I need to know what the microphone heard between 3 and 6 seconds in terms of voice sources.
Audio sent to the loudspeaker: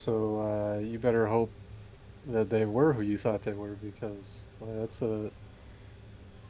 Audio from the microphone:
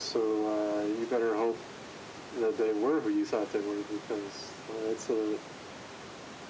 echo only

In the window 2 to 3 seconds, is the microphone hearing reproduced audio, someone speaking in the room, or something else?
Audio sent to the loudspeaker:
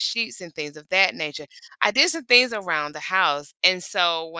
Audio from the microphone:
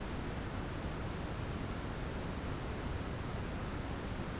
neither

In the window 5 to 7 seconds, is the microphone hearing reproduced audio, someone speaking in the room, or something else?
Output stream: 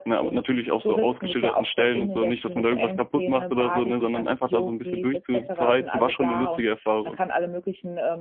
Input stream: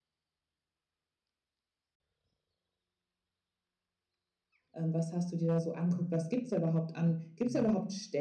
user only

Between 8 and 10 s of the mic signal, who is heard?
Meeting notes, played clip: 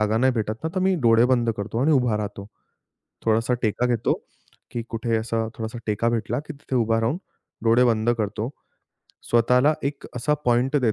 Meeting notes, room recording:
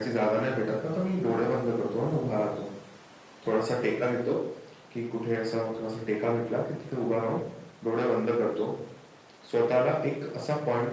echo only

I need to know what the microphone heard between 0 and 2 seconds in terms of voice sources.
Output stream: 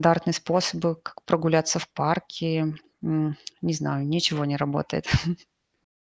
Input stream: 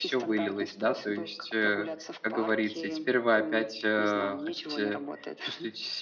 both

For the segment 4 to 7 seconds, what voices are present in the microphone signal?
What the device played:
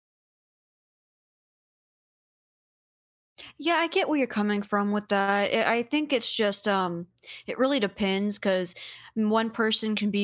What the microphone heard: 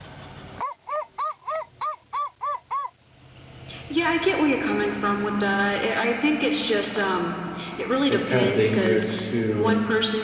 echo only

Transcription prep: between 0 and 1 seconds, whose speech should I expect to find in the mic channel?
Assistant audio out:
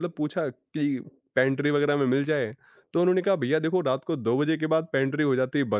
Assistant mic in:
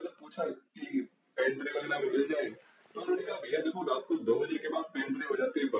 echo only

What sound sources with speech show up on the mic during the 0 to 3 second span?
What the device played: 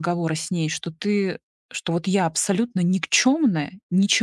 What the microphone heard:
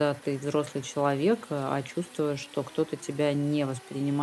user only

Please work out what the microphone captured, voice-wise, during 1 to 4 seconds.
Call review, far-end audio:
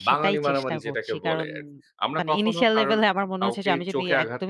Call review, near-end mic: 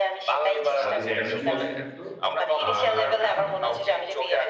both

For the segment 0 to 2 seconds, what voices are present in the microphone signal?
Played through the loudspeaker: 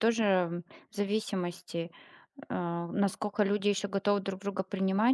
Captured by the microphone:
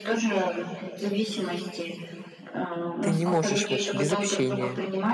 echo only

